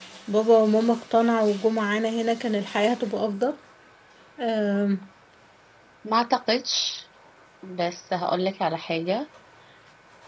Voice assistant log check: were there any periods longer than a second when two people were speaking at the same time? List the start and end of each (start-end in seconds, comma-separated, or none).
none